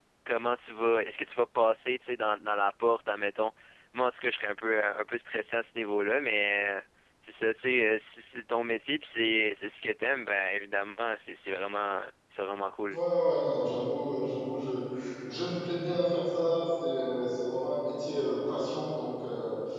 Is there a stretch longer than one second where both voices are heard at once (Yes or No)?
No